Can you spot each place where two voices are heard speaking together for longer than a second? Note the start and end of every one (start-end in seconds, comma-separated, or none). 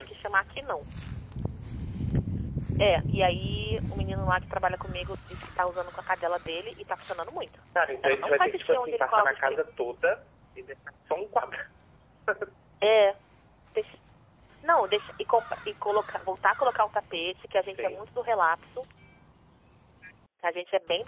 8.0-9.6